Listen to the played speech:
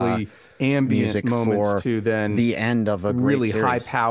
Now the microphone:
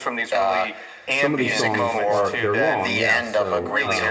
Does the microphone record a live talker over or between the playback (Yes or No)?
Yes